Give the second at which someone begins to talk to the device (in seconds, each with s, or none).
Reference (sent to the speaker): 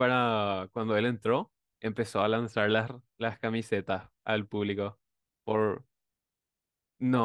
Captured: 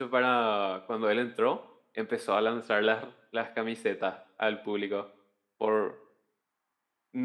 none